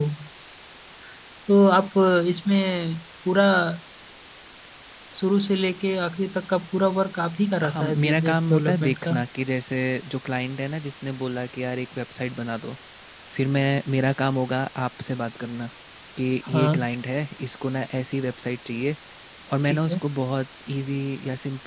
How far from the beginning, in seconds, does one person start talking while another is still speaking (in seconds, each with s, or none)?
7.7 s